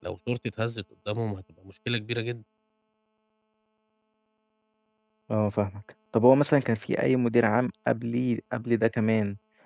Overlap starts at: none

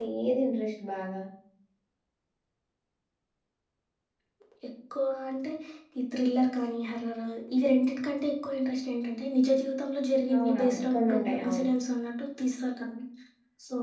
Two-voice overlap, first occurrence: 10.3 s

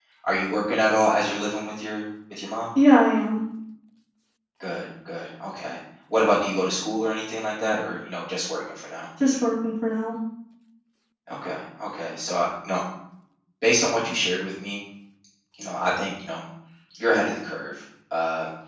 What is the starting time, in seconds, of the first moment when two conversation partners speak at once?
none

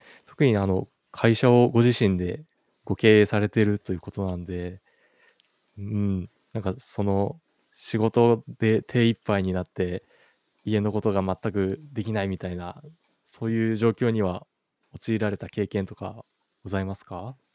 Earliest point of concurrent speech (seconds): none

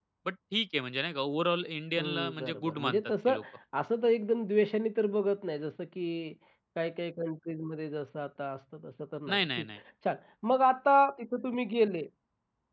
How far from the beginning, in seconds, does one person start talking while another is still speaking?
2.0 s

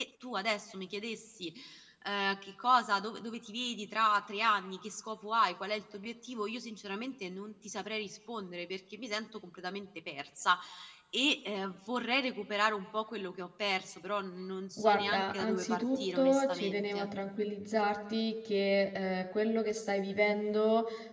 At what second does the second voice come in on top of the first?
14.8 s

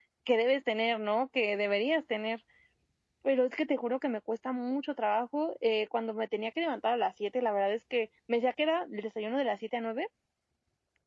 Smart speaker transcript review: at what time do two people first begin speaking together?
none

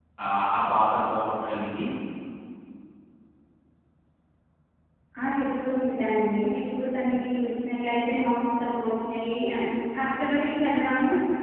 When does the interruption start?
none

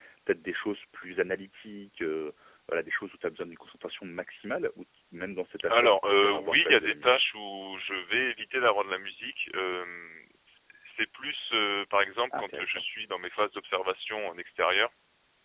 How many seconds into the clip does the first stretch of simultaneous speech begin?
5.7 s

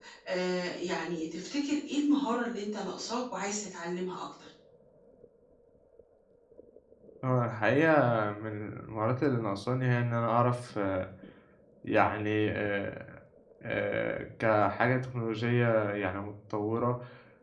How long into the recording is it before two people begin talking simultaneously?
none

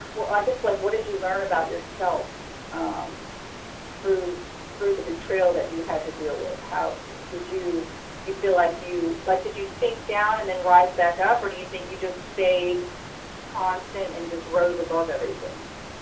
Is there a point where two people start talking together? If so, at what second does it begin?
none

